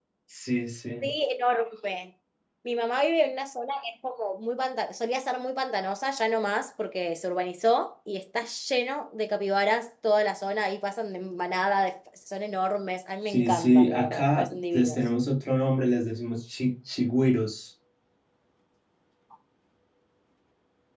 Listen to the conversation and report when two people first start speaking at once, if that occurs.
13.3 s

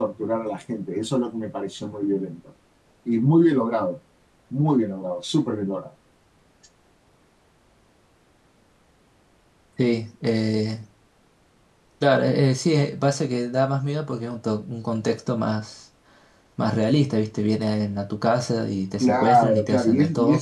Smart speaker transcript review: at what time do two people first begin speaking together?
19.0 s

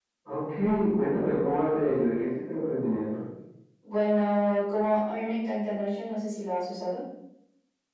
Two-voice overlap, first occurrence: none

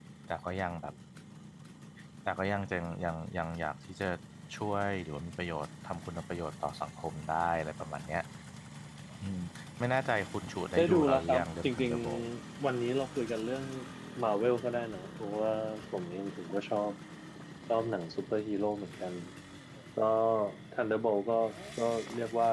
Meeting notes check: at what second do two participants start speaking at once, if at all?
10.8 s

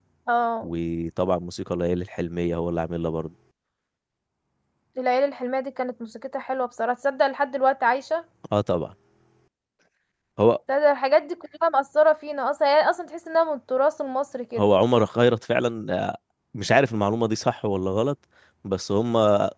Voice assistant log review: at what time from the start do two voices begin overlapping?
none

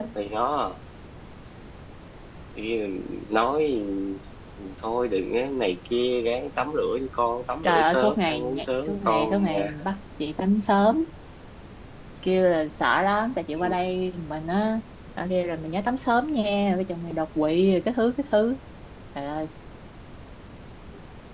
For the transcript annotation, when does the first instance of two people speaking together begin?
7.6 s

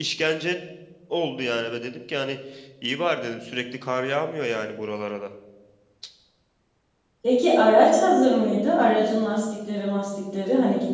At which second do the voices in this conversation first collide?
none

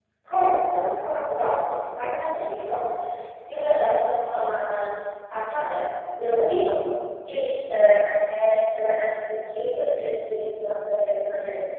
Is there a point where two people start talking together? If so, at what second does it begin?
none

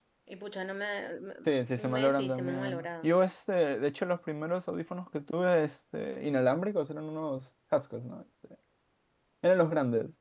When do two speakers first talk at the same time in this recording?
1.8 s

